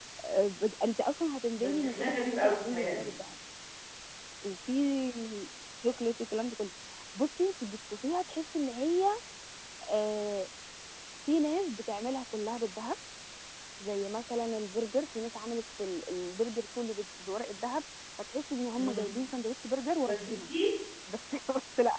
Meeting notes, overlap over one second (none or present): present